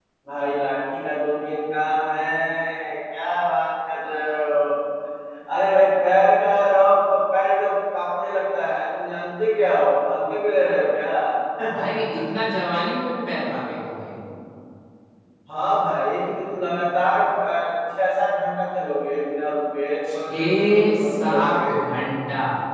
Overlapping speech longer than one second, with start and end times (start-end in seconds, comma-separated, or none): 20.1-21.7